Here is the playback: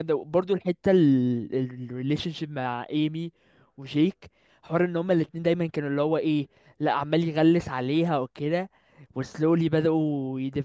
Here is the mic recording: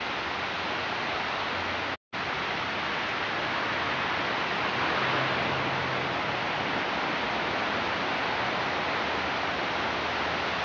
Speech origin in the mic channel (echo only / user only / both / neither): neither